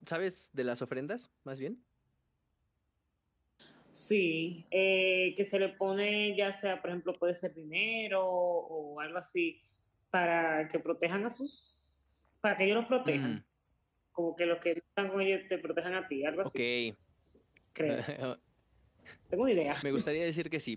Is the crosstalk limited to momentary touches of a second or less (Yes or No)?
Yes